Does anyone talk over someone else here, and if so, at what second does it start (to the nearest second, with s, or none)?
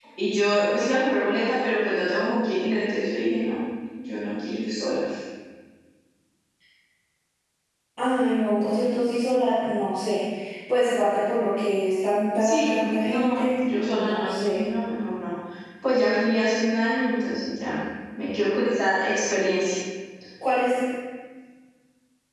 12 s